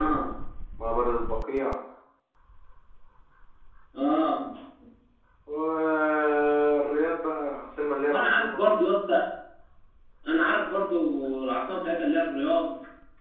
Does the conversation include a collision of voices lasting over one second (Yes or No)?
No